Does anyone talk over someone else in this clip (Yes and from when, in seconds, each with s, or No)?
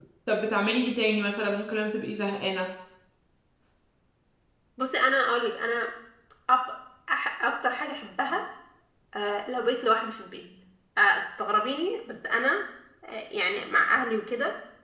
No